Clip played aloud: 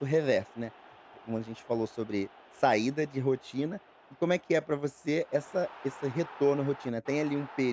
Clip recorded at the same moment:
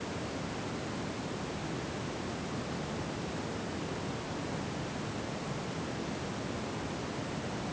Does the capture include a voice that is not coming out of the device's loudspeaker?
No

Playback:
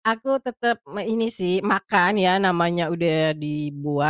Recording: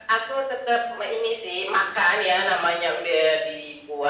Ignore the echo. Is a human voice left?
No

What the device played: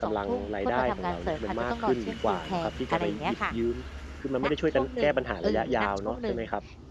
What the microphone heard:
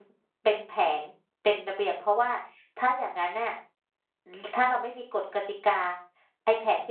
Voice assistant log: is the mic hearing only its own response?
No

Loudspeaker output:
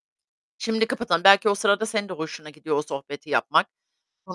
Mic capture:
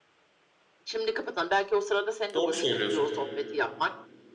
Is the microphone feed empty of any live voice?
No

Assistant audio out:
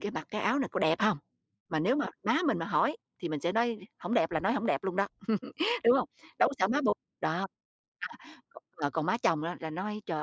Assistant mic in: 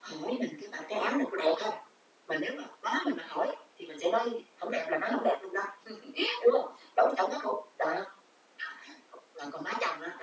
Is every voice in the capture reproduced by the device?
Yes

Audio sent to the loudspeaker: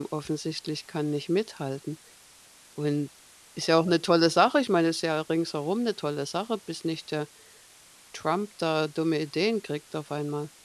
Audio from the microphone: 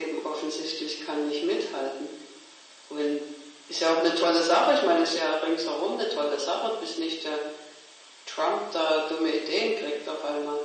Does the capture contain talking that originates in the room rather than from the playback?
No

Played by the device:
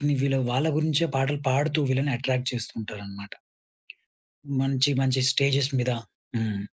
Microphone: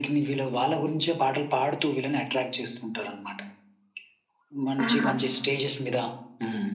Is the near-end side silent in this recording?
No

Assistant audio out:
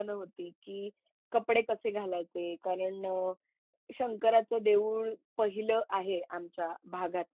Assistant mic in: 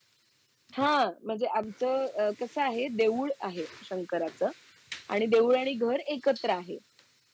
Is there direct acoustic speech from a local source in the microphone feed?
Yes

